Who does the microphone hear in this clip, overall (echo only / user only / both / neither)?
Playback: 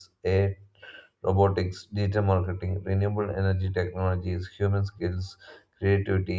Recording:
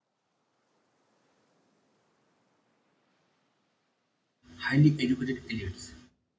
user only